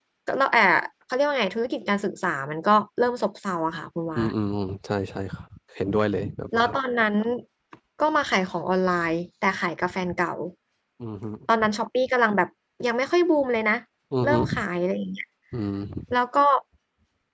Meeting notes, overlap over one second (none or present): none